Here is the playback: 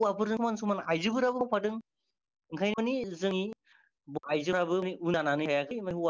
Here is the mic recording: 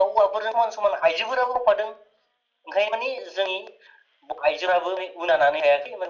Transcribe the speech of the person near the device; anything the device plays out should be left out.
none

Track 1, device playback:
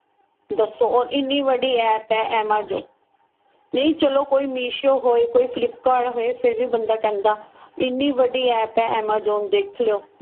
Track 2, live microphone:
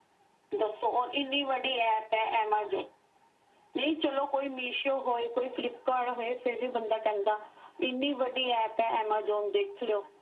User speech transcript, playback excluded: none

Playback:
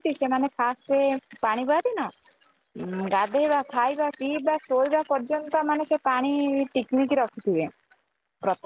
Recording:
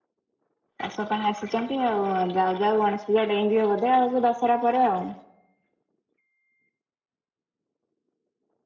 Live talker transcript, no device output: ଚାଷ ପାଇଁ ଆସିଛନ୍ତି ଆଉ ଯାଉ ଯାଉ ଗଣେଶ ପୂଜା ଡେଇଁଯିବ ବୋଧେ ଆଉ ସେ ଦଶହରା ପରେ ଆଉ।

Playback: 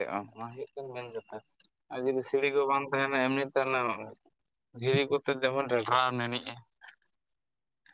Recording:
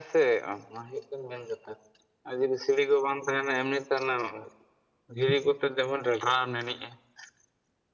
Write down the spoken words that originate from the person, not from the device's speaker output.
none

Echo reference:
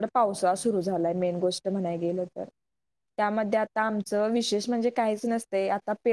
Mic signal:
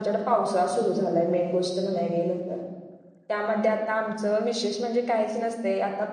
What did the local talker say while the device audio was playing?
none

